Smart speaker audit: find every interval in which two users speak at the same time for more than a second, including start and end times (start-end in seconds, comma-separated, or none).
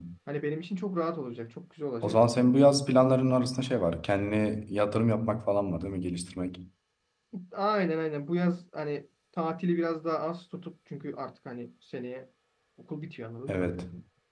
none